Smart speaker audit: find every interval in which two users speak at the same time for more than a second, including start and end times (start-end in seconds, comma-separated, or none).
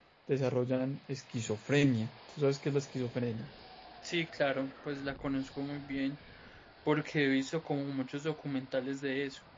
none